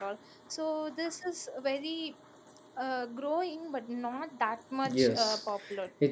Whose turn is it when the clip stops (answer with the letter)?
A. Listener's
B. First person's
A